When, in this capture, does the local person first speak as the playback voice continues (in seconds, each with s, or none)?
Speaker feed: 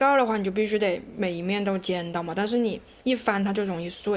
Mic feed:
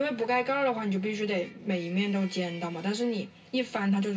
none